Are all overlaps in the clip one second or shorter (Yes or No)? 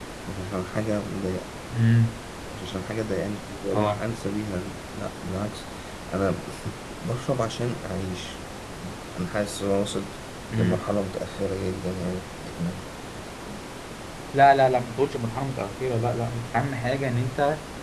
Yes